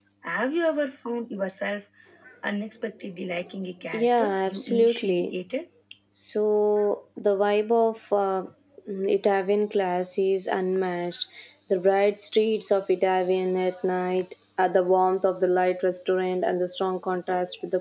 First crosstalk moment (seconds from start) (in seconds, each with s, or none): 3.9 s